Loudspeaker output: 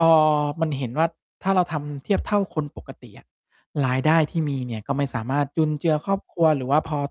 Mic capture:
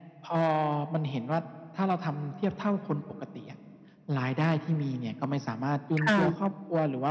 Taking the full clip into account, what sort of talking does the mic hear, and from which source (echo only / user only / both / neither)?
both